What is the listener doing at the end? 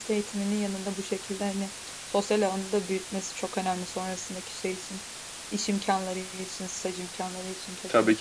taking over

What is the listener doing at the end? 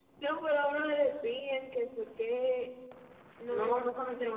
taking over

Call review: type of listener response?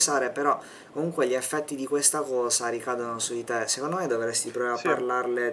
listening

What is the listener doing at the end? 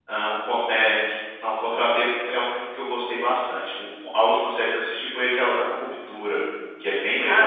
taking over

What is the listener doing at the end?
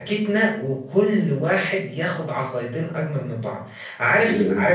listening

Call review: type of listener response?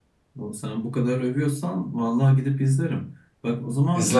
listening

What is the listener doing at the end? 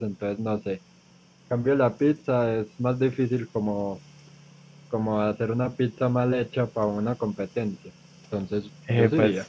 taking over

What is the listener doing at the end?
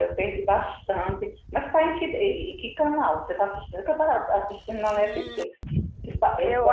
taking over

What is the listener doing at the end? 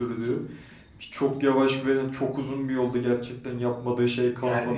taking over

